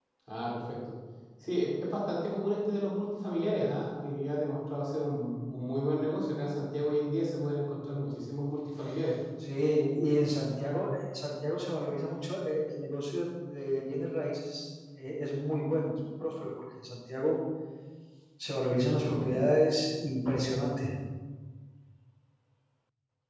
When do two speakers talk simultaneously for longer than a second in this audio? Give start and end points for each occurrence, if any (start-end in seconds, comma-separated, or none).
none